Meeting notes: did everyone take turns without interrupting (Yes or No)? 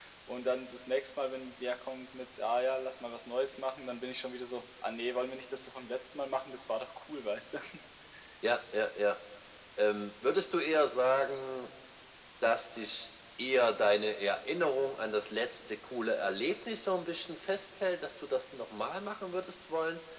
Yes